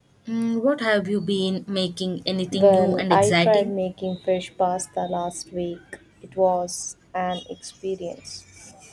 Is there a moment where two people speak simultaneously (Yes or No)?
Yes